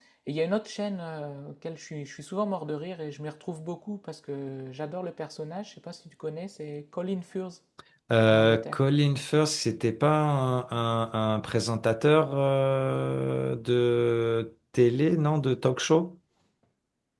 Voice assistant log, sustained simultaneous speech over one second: none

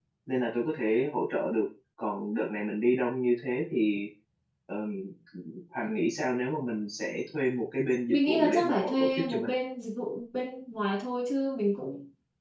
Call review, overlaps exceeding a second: present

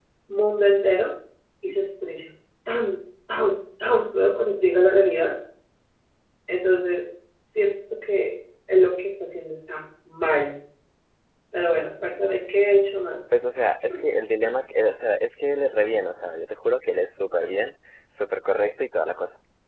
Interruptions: none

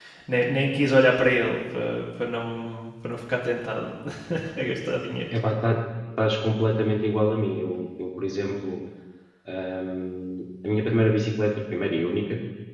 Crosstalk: none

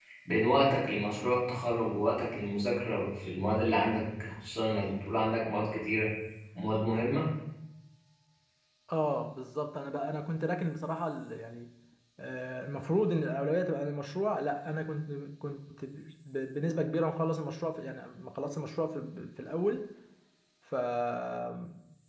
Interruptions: none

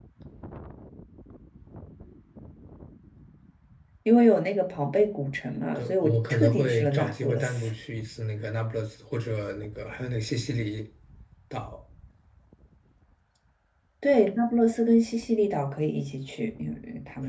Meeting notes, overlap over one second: present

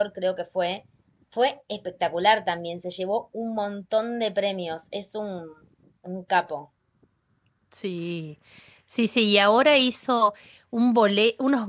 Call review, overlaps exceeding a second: none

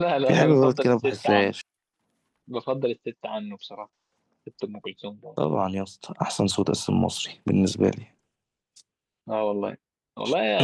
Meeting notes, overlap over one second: present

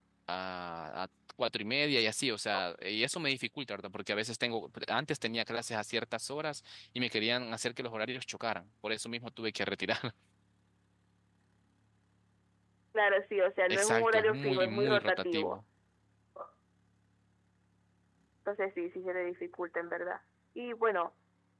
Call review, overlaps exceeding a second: present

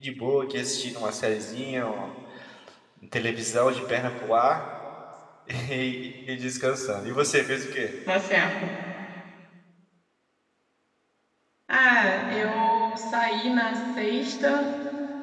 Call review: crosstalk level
none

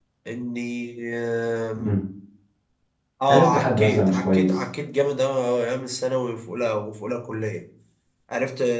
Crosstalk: present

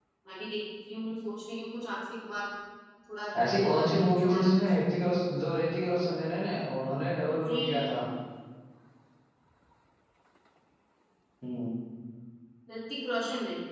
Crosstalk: present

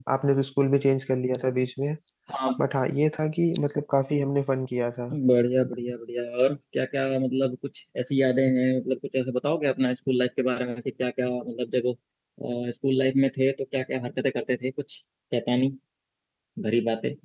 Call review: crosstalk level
none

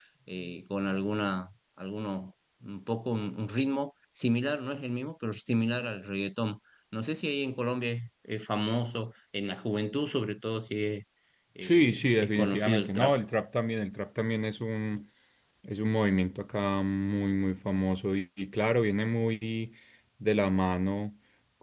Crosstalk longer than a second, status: present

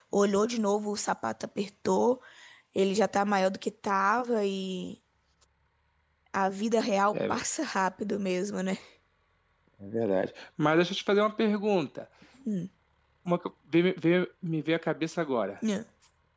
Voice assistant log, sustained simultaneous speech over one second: none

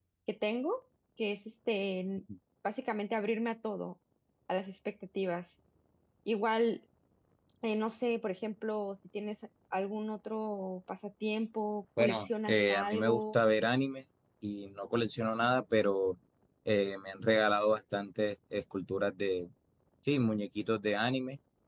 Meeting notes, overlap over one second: present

